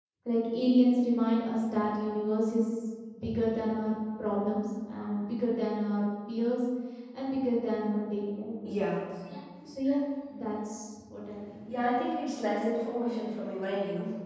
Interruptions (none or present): none